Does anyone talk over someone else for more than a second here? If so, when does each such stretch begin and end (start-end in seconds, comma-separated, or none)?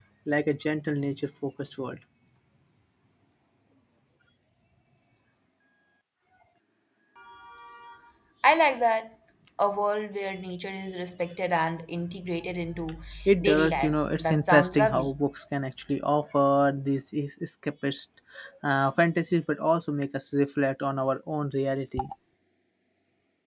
13.4-15.1